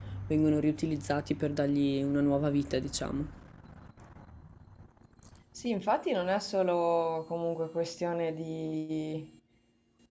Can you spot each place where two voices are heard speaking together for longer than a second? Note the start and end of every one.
none

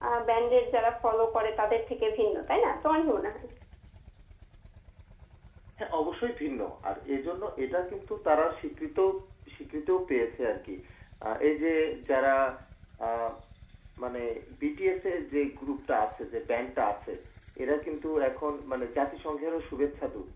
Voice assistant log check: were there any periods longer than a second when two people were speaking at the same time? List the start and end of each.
none

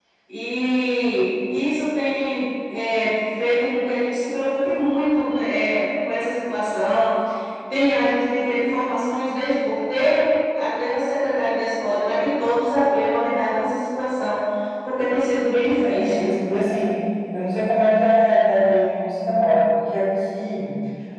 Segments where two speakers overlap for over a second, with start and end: none

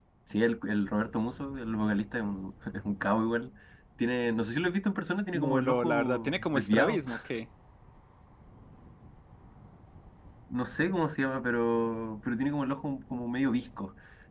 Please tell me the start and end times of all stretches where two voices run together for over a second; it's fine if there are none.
5.3-7.0

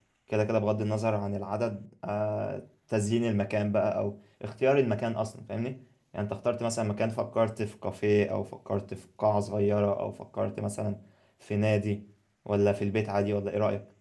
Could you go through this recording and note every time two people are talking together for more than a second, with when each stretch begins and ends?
none

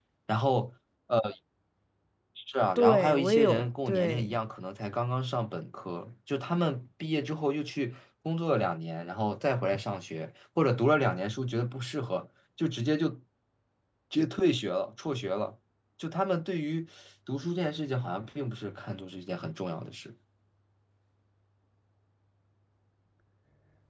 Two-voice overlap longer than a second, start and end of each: 2.8-4.3

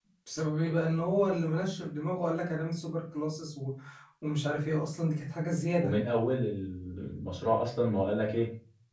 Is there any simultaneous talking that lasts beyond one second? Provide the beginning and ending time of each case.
none

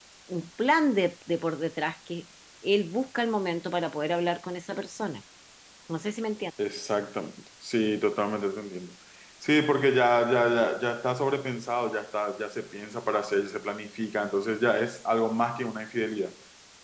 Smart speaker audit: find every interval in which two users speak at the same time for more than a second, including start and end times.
none

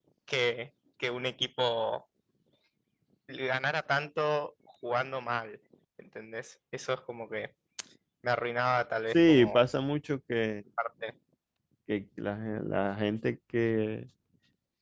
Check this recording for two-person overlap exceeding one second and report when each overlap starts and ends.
none

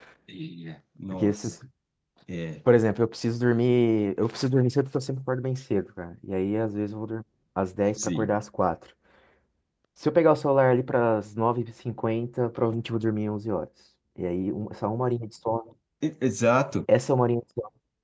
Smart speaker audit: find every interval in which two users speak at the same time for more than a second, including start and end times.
none

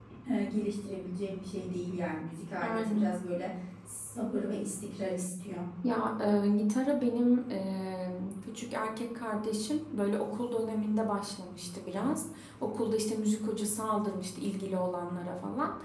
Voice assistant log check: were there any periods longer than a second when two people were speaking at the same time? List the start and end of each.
none

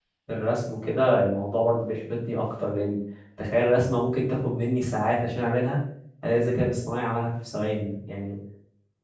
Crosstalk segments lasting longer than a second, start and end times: none

